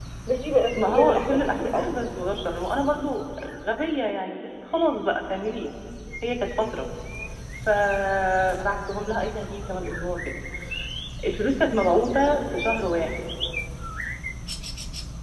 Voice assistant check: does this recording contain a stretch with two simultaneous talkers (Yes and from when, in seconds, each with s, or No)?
Yes, from 0.8 s